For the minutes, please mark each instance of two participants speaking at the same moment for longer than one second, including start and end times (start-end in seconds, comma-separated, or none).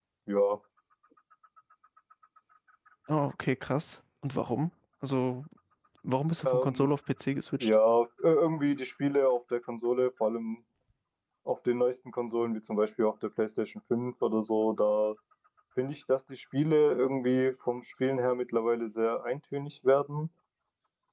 none